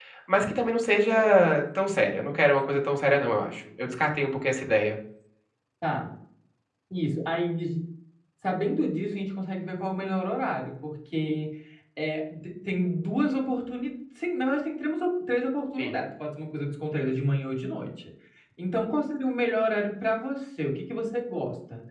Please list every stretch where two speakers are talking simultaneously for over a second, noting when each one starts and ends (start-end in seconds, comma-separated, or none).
none